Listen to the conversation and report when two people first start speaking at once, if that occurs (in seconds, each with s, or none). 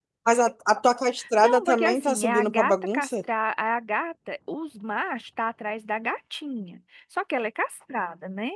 1.2 s